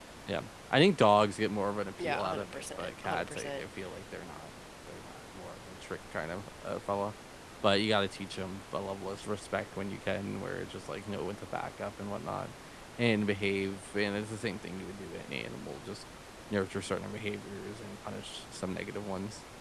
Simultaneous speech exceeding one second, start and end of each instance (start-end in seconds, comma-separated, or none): 2.0-3.6